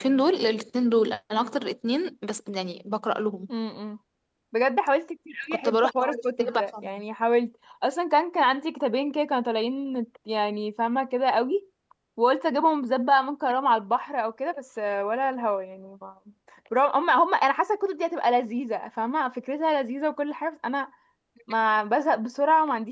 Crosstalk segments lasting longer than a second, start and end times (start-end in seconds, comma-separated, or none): 5.6-6.9